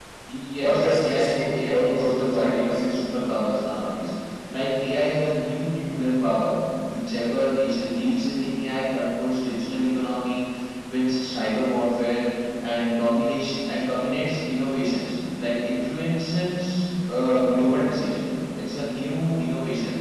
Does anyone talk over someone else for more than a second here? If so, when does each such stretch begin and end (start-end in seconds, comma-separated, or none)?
0.6-2.8